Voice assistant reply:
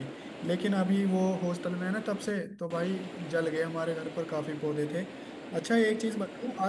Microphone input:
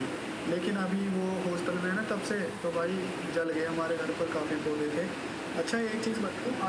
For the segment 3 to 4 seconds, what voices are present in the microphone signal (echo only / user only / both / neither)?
echo only